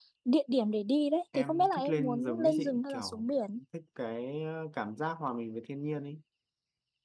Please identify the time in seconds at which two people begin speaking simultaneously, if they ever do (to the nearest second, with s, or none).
1 s